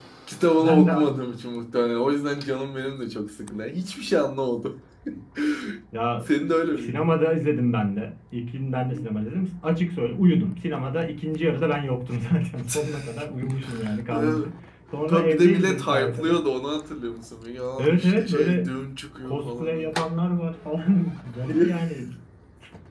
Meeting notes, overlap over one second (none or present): present